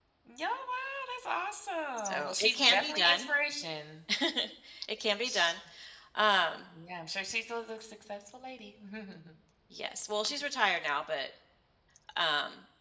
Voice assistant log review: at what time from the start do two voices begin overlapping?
2.0 s

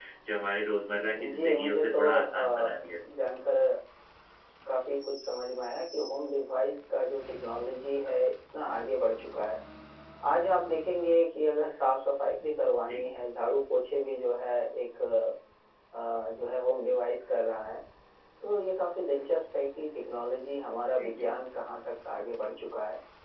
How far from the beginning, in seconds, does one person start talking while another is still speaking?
1.3 s

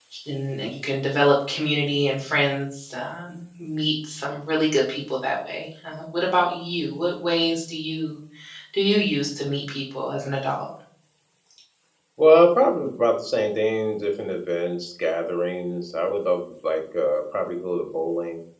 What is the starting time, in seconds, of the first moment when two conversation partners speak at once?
none

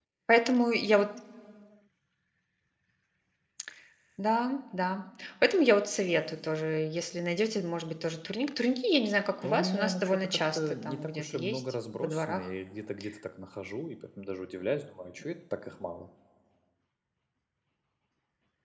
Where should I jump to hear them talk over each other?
9.4 s

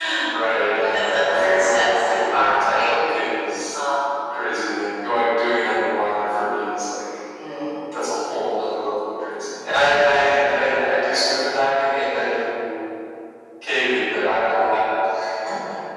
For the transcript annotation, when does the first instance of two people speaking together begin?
0.9 s

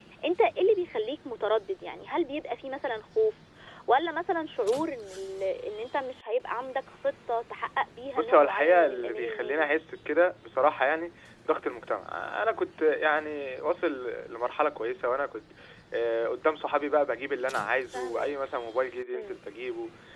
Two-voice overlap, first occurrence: 8.1 s

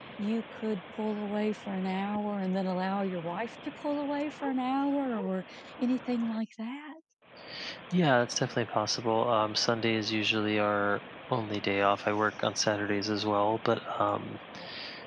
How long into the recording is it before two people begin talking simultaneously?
none

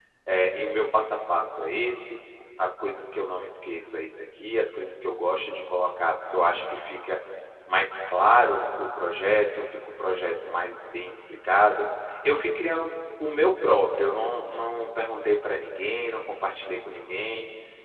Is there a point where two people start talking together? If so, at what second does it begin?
none

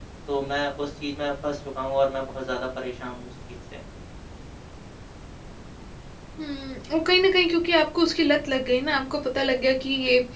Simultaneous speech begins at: none

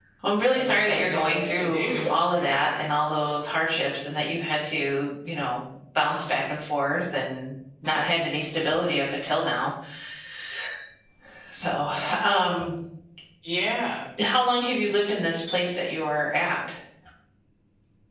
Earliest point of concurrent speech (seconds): 0.7 s

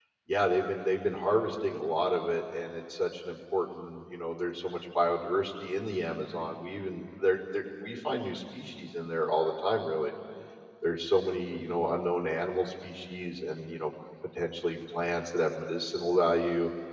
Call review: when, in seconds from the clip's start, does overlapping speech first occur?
none

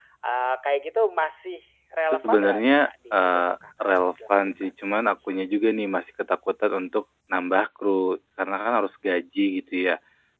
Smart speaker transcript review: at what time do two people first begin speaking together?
2.1 s

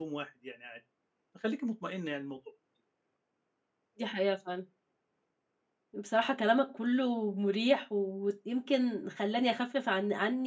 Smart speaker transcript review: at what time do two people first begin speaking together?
none

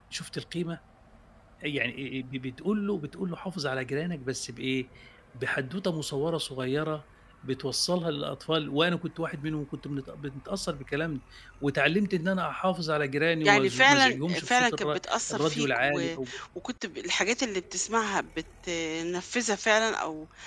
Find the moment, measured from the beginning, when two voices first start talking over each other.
13.4 s

